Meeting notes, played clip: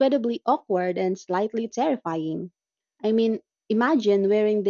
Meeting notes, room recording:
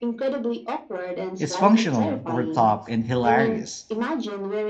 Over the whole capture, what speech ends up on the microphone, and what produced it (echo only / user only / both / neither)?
both